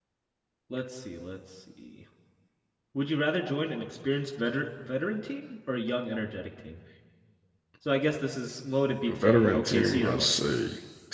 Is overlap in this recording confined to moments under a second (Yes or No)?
No